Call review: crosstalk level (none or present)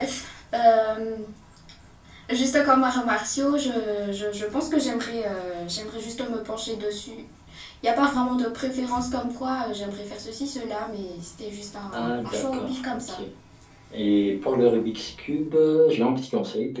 present